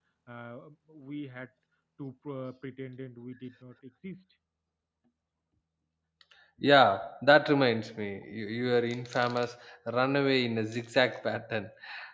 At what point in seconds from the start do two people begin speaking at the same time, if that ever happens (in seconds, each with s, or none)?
none